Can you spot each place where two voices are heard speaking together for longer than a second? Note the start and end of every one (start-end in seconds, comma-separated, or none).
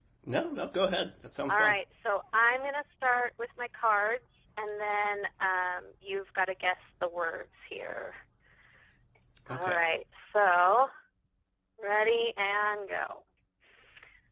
none